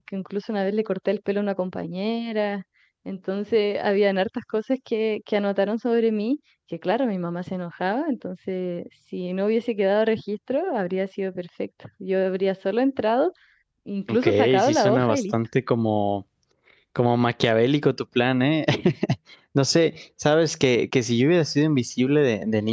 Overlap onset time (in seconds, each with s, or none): 14.1 s